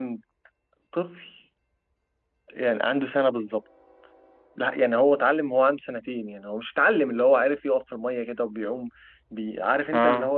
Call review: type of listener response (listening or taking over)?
listening